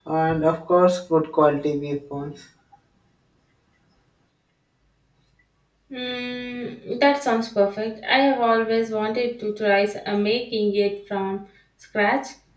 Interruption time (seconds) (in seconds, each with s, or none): none